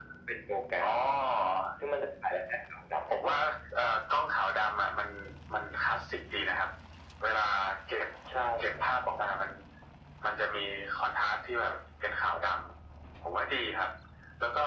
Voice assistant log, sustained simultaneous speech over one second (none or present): none